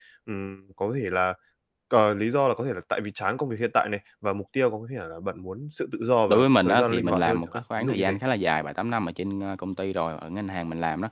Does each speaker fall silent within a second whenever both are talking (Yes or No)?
No